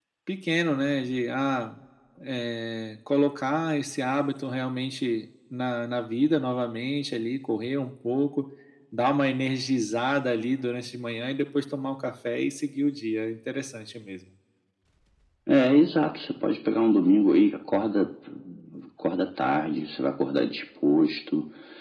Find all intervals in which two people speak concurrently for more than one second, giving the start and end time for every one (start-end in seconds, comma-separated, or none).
none